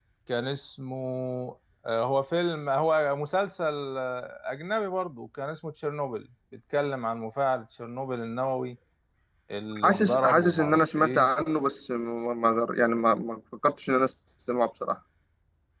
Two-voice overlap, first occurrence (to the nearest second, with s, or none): 10 s